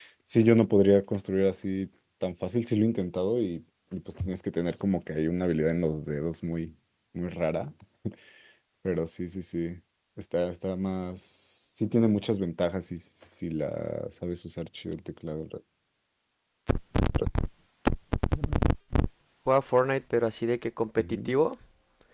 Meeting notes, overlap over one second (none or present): none